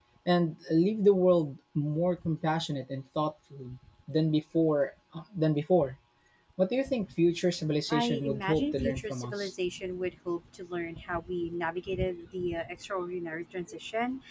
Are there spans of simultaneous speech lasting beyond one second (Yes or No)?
Yes